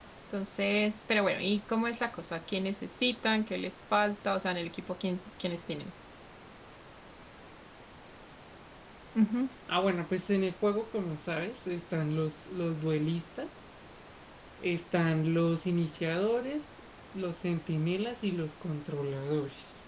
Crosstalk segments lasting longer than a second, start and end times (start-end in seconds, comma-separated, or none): none